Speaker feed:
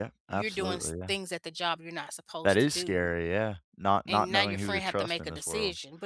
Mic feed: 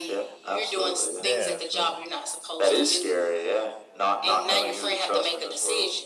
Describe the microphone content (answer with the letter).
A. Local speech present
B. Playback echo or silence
A